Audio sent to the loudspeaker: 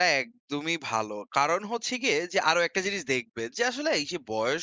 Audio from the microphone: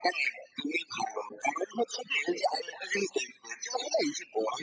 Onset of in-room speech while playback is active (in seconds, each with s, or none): none